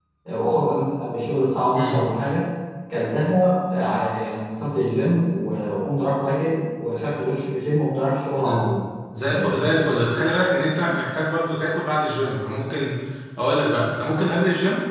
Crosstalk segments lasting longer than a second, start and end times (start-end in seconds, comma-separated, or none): none